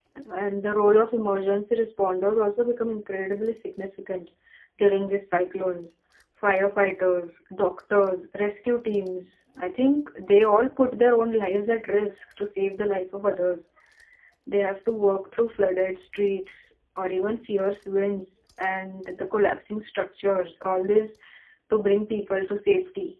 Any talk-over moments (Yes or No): No